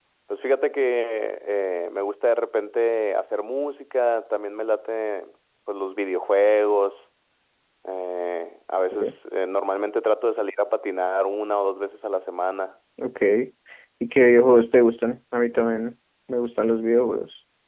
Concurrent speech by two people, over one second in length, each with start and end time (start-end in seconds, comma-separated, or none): none